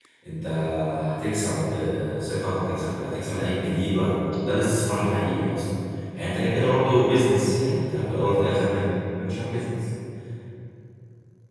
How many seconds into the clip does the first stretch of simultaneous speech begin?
none

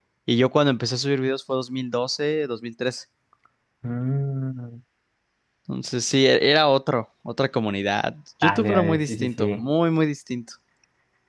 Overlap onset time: 8.4 s

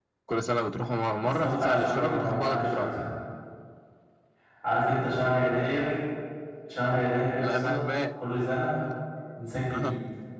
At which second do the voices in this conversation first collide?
1.2 s

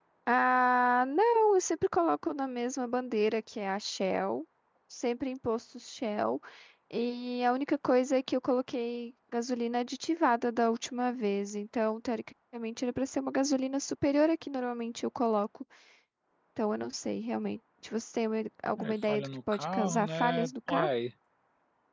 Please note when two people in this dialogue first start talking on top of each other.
18.8 s

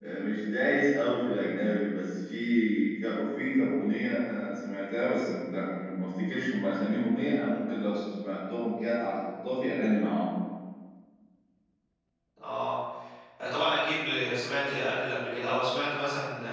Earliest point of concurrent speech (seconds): none

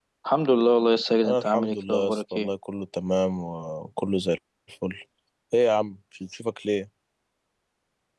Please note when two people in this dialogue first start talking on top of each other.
1.2 s

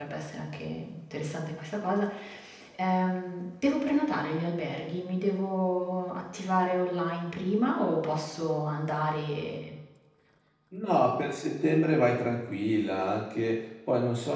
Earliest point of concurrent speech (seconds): none

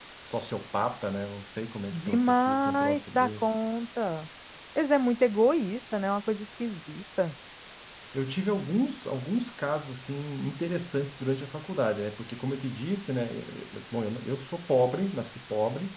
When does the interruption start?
1.9 s

